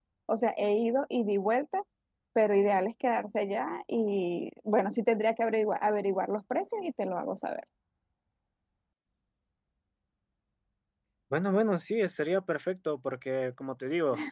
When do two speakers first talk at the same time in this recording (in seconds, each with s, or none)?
none